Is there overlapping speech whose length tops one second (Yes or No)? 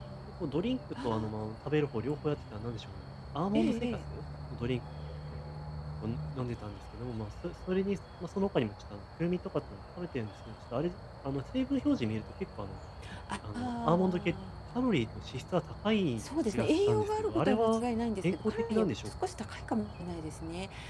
Yes